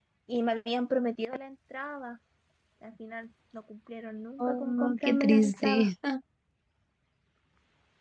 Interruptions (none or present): present